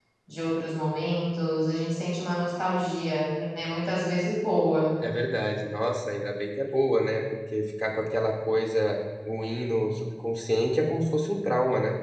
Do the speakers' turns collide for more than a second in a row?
No

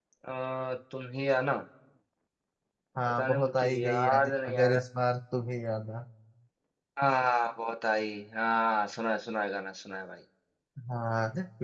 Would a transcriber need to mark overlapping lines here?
Yes, from 3.2 s

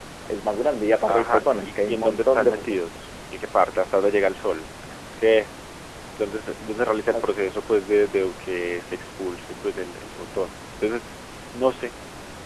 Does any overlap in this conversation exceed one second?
Yes, from 1.1 s

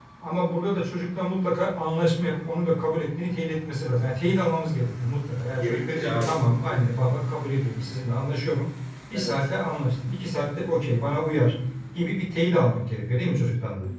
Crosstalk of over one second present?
Yes, from 5.6 s

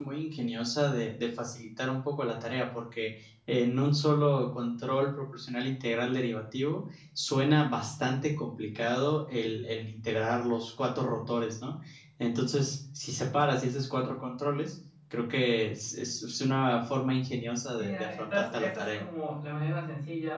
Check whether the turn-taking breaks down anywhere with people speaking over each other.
Yes, from 17.8 s

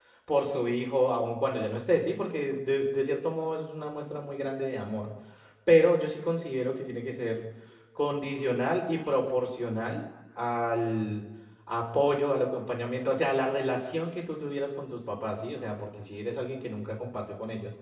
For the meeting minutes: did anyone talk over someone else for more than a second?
No

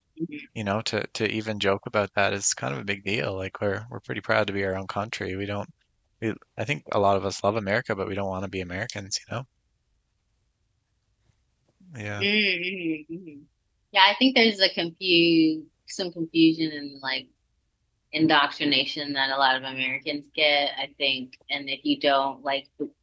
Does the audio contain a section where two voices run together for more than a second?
No

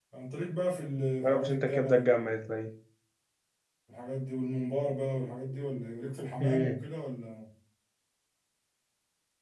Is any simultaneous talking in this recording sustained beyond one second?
Yes, from 1.2 s

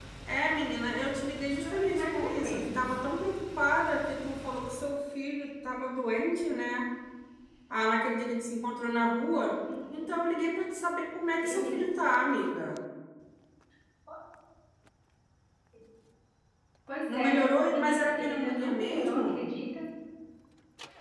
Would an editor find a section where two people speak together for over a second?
Yes, from 1.6 s

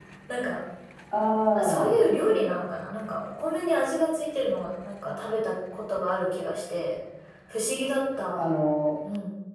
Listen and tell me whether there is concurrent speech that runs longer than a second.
No

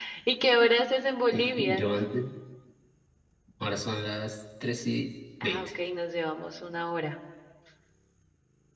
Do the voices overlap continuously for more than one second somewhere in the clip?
No

